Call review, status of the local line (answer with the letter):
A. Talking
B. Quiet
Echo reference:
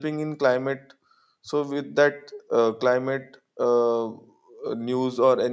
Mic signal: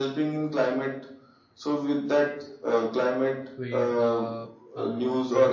A